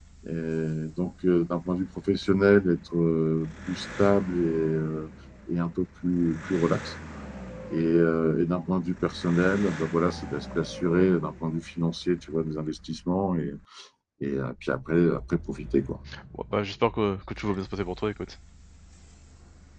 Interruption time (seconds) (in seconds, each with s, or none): none